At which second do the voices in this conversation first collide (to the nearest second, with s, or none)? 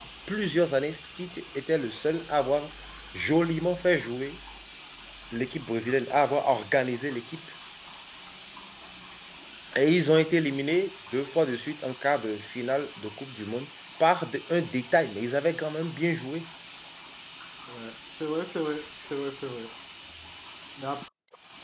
none